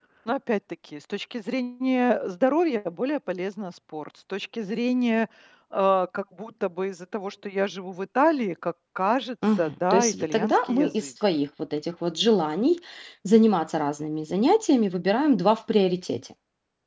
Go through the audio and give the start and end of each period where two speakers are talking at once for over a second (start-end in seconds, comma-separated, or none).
9.6-11.1